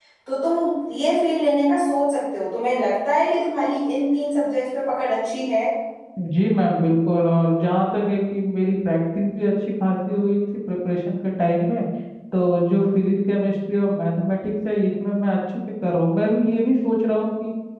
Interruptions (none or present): none